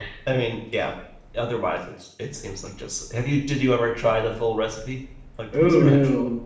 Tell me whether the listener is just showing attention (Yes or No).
No